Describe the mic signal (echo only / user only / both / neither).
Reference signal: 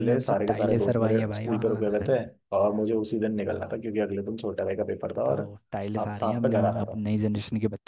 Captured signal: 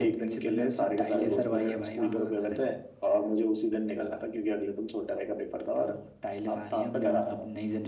echo only